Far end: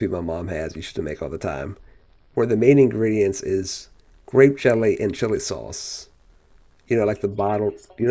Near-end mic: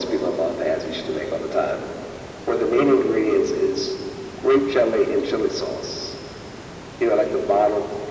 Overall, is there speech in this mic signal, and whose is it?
echo only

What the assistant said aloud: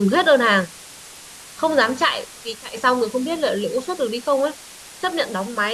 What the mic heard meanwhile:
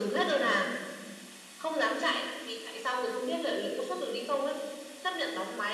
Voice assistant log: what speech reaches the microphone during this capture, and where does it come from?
echo only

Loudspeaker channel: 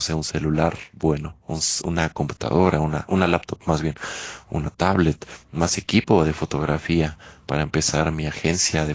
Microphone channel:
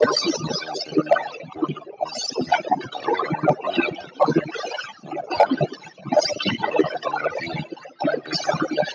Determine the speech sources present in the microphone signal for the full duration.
echo only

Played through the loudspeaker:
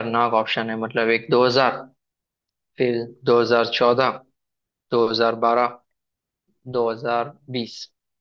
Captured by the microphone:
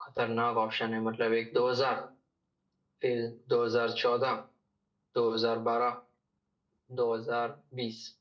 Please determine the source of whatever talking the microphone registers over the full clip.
echo only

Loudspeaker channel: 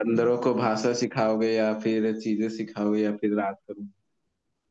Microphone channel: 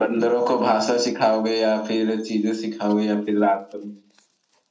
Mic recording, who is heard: echo only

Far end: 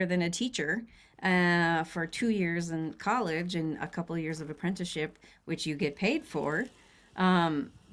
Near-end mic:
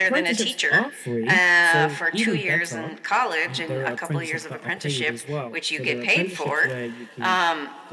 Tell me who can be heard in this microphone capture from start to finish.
both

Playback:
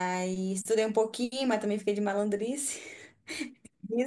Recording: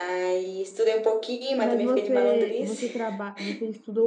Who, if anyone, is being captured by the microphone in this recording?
both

